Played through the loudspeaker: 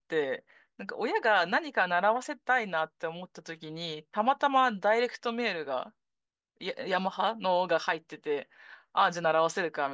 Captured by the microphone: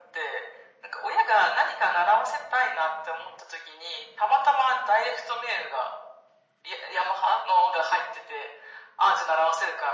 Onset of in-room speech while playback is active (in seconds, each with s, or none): none